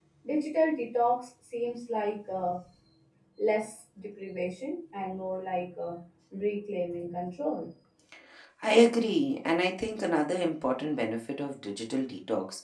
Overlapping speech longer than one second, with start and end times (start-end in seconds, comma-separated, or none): none